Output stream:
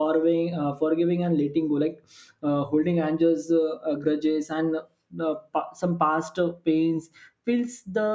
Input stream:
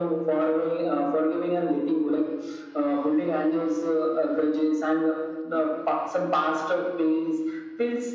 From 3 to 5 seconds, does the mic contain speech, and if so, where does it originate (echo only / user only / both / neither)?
echo only